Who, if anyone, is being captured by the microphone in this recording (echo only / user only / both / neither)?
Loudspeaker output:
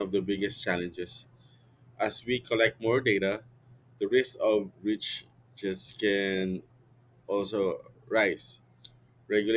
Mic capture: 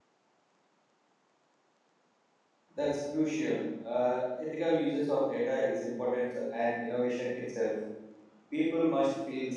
user only